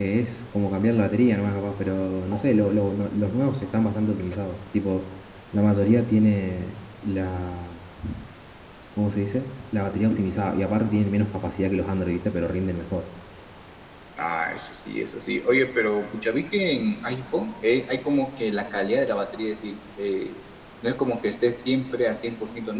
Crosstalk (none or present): none